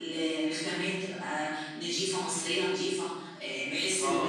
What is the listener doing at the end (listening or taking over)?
taking over